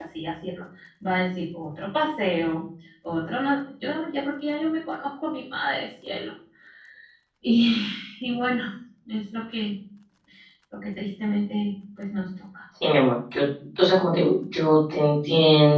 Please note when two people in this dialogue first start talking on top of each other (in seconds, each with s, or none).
none